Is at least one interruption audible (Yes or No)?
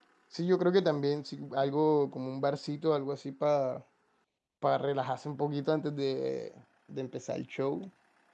No